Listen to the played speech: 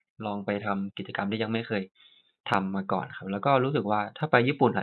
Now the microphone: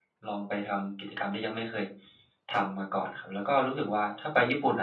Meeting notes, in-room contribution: none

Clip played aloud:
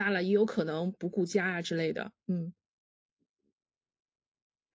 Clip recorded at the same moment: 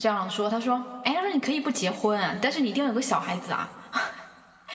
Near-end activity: present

